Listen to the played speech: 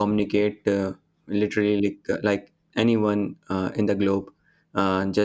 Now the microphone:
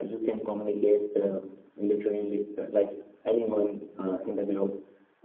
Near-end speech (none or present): none